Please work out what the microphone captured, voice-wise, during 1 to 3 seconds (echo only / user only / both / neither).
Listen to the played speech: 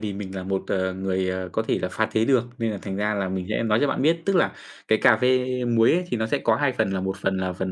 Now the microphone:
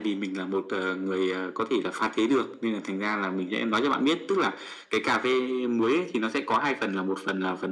echo only